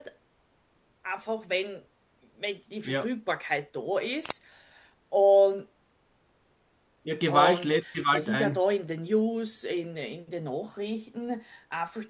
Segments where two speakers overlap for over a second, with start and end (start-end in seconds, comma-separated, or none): 7.3-8.6